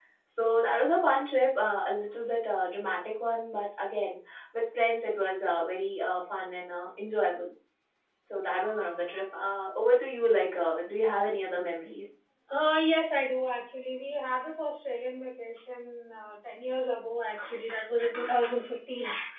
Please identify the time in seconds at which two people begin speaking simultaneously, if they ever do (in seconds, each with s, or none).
none